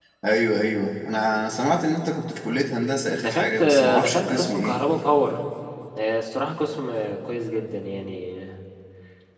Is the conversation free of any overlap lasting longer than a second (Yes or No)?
No